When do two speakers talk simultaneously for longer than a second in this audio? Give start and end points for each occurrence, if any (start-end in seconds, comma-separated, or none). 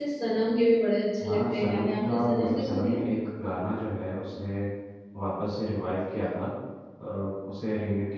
1.2-3.0